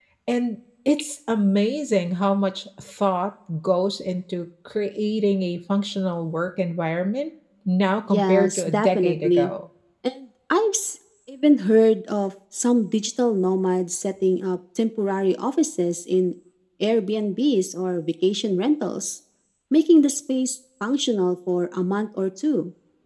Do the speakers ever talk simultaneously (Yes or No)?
Yes